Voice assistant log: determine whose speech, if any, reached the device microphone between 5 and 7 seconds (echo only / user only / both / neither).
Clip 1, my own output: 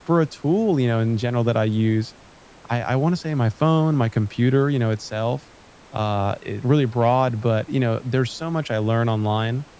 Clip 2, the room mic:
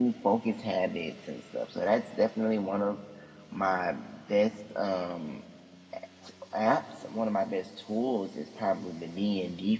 user only